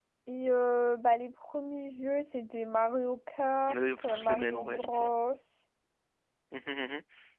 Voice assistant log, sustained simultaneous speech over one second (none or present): present